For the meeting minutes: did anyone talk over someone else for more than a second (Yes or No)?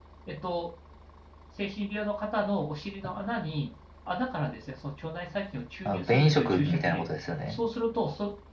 Yes